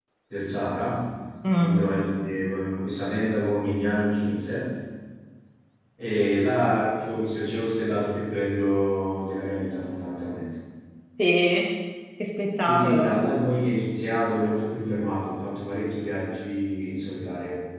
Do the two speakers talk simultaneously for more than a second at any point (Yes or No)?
No